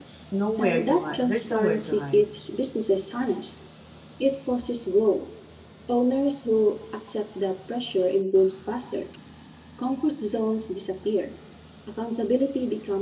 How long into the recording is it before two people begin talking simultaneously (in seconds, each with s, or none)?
0.6 s